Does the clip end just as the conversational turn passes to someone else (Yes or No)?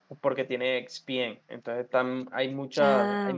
No